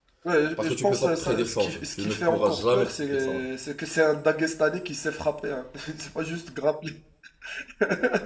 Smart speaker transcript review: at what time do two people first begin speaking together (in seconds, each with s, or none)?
0.6 s